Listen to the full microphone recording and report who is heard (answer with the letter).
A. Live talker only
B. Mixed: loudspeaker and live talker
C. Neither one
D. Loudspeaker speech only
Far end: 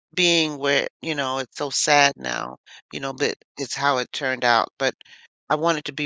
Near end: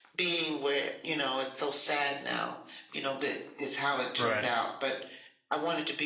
B